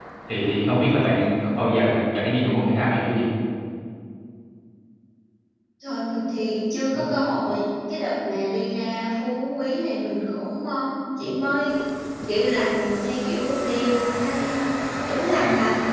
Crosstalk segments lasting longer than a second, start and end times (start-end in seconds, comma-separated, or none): none